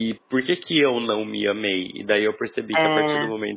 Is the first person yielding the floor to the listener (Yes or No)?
No